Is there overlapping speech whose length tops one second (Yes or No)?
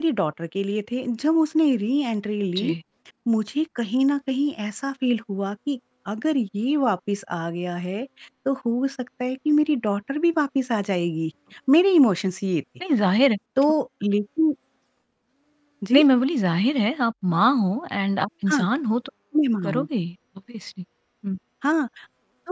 No